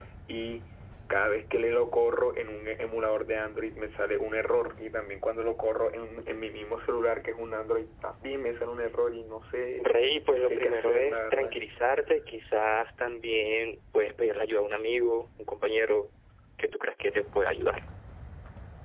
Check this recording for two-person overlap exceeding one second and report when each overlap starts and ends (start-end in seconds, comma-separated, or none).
10.3-11.6